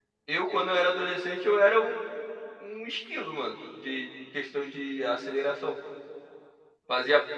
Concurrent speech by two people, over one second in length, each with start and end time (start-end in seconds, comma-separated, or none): none